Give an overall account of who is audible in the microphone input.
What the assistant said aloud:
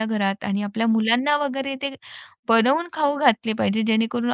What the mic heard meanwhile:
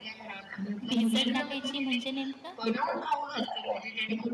both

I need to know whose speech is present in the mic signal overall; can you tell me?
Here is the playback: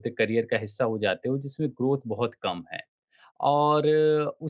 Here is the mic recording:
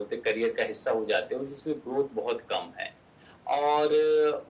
echo only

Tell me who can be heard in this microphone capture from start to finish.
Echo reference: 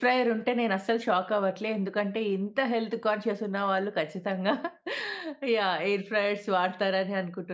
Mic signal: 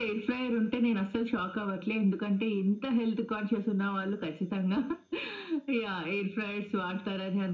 echo only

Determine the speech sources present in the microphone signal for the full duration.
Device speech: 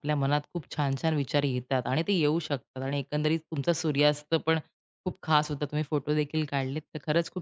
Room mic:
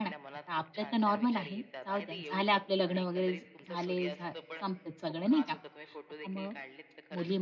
both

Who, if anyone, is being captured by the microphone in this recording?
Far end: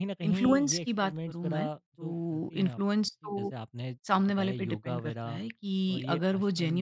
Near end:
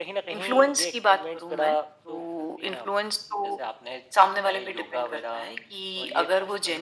echo only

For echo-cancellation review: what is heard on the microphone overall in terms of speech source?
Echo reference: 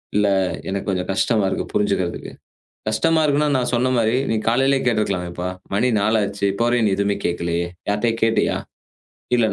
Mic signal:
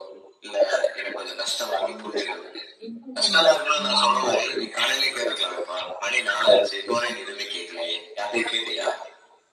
both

